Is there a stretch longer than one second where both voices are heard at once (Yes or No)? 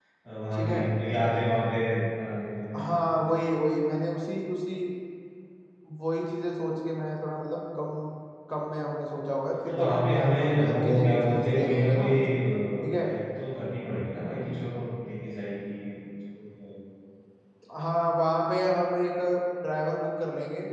Yes